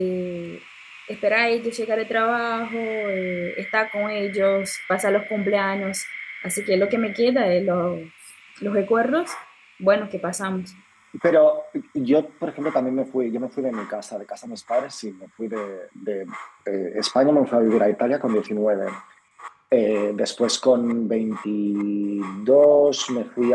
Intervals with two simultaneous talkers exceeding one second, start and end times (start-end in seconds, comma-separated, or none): none